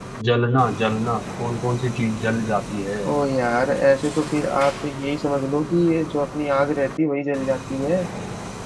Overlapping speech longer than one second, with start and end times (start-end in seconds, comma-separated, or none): none